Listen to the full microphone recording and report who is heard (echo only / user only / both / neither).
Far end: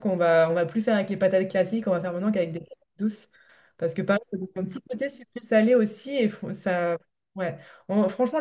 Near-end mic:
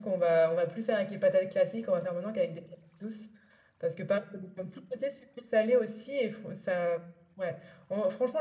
echo only